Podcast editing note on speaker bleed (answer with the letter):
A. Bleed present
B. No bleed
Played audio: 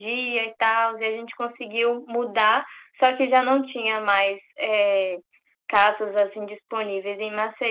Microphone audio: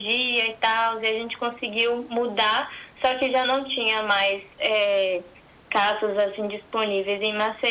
A